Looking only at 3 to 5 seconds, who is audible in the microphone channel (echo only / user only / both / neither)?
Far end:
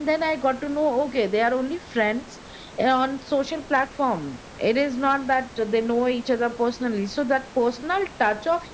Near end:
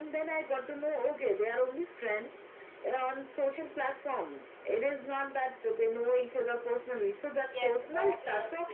echo only